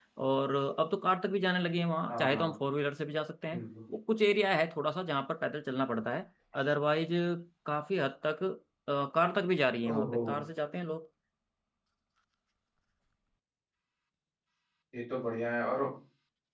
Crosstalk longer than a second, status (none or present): none